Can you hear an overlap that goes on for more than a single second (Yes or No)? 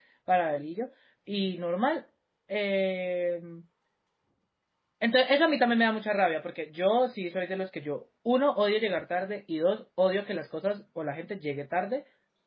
No